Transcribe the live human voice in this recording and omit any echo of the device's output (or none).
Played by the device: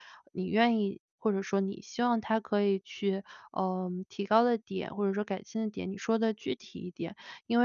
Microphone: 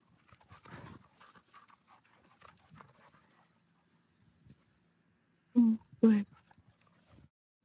嗯，对。